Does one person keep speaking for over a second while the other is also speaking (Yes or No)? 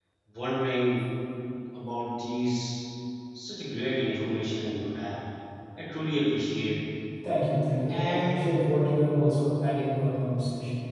No